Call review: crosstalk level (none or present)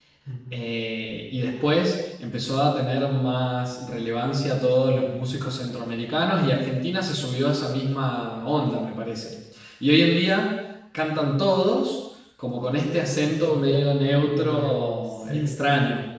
present